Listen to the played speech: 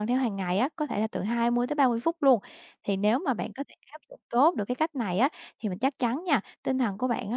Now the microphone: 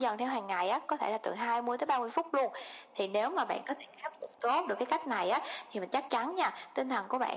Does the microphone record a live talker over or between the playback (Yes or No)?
No